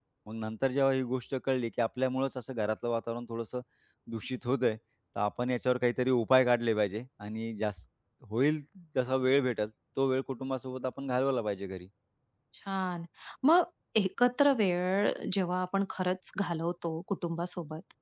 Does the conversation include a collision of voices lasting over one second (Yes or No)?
No